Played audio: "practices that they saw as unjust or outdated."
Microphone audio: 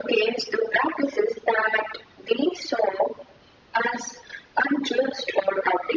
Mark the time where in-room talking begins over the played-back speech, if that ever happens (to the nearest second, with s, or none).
none